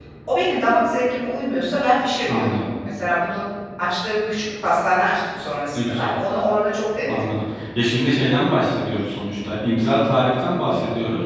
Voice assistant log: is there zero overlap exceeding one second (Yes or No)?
Yes